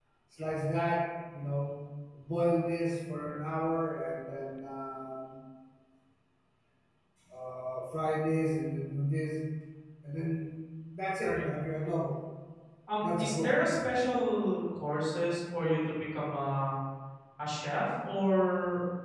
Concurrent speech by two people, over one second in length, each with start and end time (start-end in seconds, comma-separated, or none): none